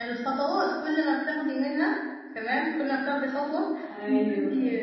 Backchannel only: Yes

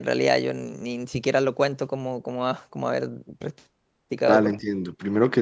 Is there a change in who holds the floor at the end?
Yes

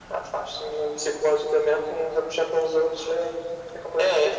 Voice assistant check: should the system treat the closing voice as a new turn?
Yes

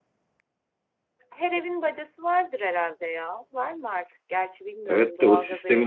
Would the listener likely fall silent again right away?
No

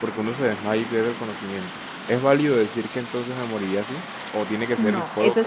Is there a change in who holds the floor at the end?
Yes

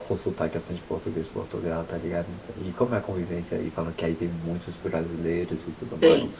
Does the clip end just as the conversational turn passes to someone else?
Yes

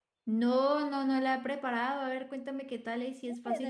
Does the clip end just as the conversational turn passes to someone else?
Yes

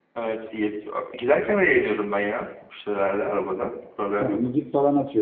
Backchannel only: No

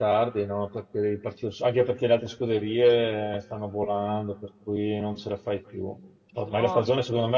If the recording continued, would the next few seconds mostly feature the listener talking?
No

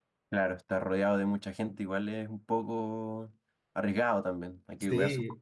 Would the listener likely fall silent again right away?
No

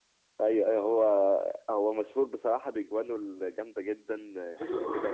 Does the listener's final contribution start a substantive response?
Yes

